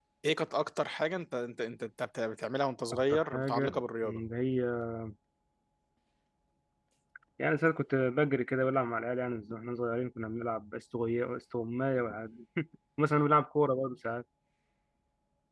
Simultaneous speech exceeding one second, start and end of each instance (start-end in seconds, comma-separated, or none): 2.9-4.2